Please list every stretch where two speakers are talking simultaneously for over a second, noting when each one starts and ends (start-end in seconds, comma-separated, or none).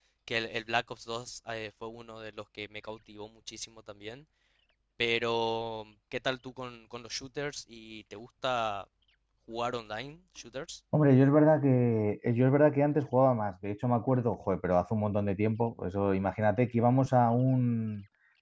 none